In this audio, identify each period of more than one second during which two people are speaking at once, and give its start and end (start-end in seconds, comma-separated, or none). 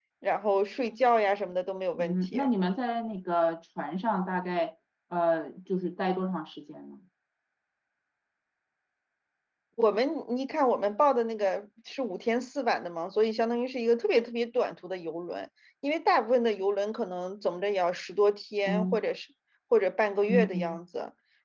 none